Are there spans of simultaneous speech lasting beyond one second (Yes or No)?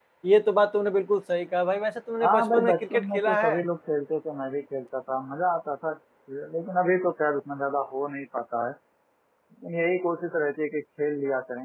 Yes